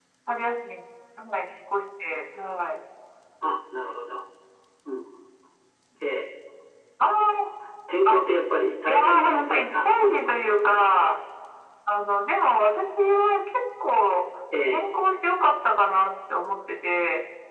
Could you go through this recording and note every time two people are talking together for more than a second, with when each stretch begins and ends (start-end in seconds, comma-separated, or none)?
8.8-10.9